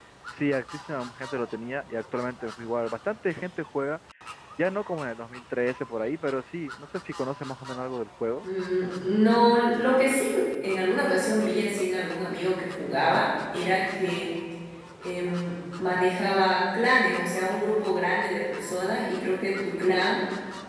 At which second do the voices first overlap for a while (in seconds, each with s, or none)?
none